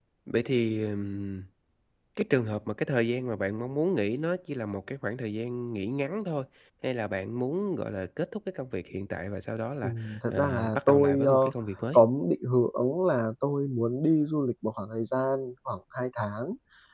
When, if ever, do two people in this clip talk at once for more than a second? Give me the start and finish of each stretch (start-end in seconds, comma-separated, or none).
9.8-11.5